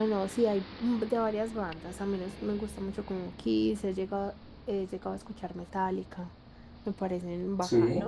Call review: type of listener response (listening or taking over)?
listening